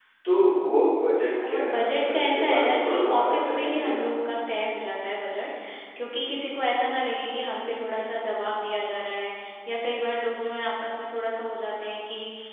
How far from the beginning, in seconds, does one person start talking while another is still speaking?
1.4 s

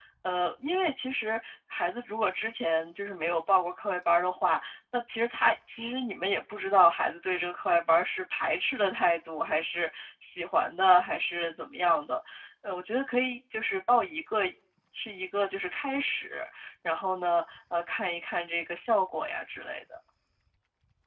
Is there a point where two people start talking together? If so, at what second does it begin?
none

